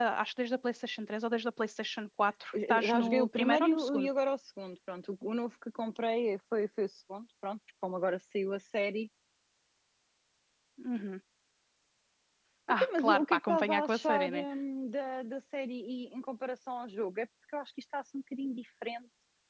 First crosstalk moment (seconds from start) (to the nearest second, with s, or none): 3 s